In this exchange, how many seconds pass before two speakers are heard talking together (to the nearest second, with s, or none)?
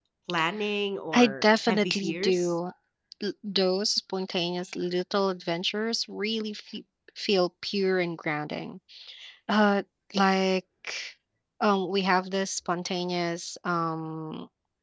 1 s